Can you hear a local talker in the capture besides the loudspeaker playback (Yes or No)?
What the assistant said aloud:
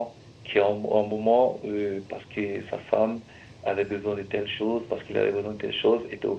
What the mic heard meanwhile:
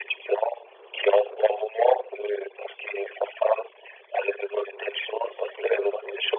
Yes